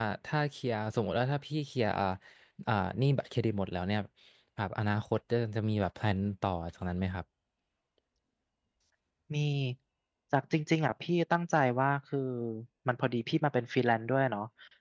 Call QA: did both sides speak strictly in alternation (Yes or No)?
Yes